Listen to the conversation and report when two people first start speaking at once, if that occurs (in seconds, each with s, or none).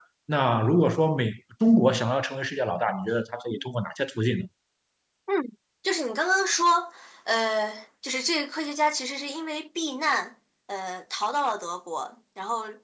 none